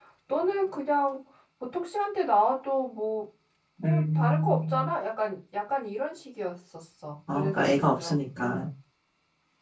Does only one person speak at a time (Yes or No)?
No